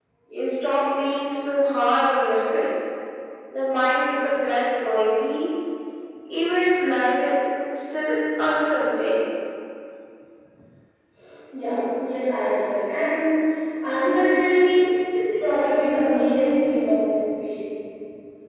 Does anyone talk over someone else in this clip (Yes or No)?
No